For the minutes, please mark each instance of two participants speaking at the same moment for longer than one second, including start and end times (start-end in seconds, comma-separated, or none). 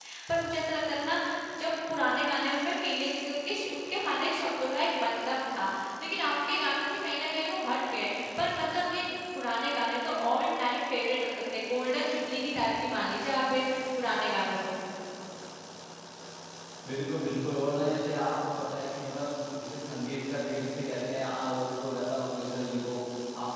none